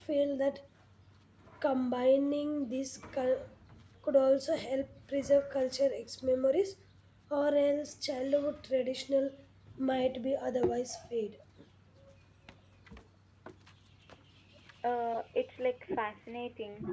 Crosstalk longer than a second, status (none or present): none